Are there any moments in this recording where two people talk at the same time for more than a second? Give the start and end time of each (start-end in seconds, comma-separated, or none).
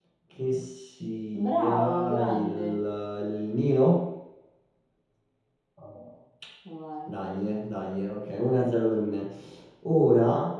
1.4-2.8